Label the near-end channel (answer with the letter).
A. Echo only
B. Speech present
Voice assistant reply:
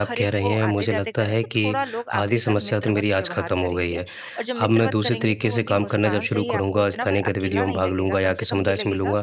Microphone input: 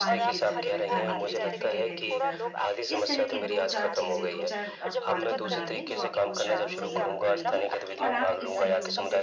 B